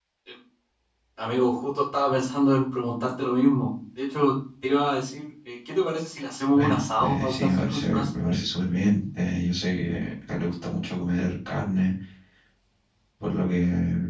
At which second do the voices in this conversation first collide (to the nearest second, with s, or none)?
7 s